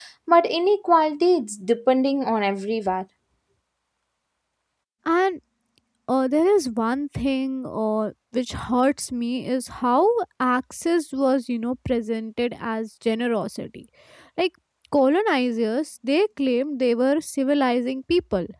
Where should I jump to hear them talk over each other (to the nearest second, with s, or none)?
none